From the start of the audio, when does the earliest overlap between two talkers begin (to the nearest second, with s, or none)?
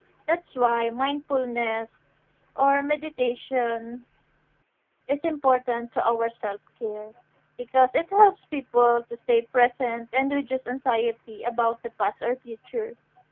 none